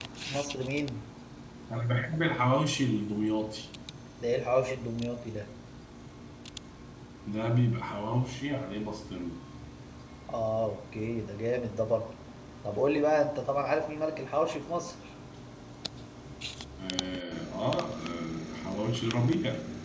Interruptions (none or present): none